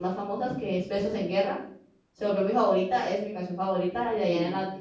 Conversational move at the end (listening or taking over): listening